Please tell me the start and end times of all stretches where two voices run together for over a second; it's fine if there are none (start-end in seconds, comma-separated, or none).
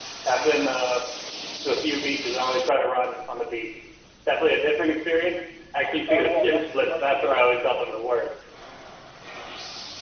6.1-7.6